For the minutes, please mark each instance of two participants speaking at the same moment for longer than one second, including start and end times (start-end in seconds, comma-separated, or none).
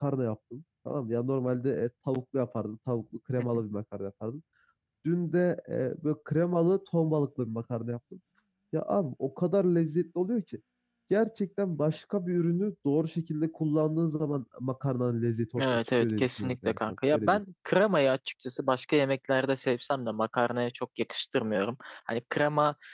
15.6-17.4